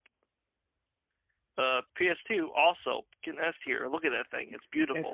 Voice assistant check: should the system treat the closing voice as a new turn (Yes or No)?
Yes